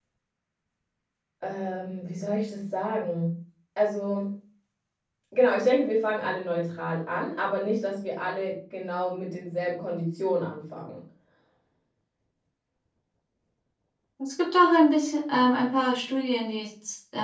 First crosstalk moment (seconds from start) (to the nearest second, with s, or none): none